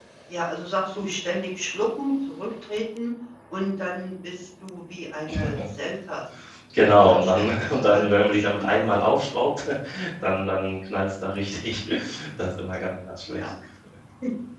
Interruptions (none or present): present